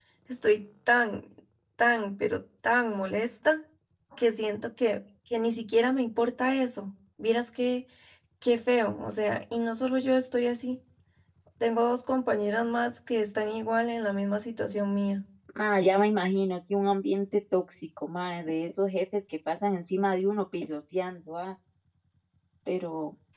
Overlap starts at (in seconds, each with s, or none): none